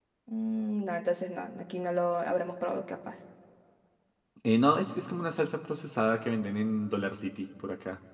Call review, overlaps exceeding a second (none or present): none